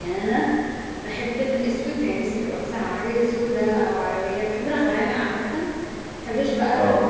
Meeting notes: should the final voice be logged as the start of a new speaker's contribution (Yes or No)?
No